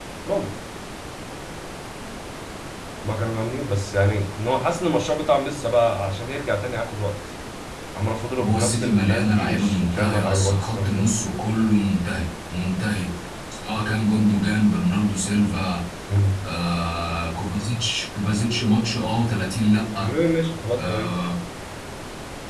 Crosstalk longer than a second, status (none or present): present